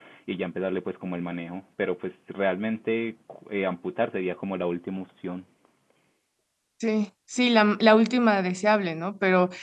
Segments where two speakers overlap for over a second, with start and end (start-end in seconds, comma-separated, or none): none